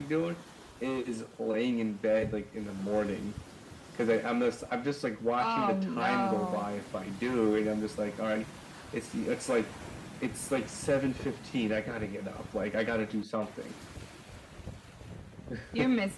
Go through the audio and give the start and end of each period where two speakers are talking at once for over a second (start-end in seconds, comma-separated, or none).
5.4-6.7